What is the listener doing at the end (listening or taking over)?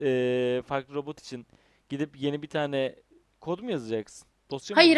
taking over